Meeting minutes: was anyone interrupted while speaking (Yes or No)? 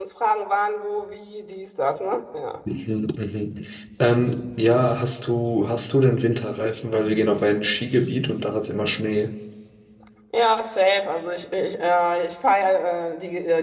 No